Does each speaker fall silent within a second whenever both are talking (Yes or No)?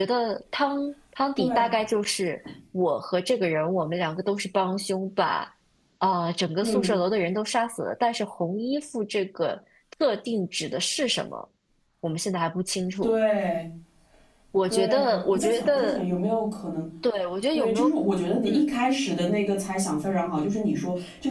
No